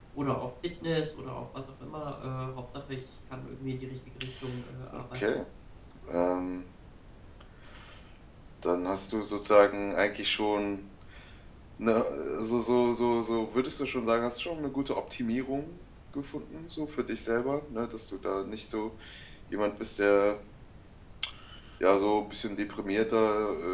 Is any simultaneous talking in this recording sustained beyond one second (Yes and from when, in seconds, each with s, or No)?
No